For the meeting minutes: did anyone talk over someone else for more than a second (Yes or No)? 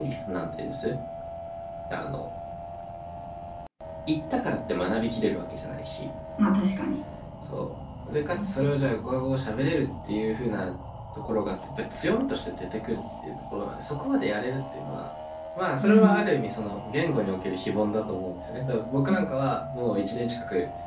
No